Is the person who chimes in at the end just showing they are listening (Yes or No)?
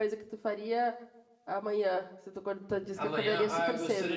No